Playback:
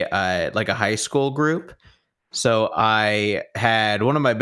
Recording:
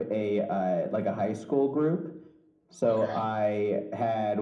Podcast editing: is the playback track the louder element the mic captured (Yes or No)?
Yes